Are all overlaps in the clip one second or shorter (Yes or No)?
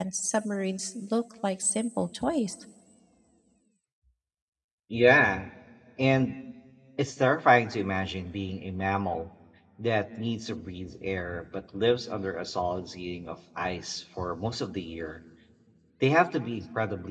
Yes